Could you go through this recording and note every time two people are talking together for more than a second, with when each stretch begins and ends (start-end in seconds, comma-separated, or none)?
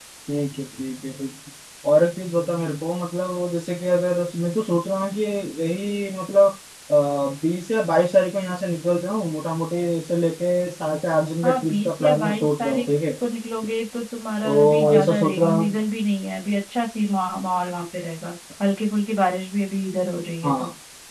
11.4-12.9, 14.4-15.8